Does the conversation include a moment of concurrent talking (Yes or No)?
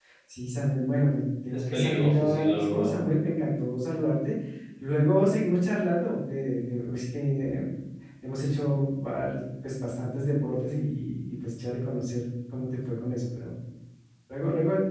Yes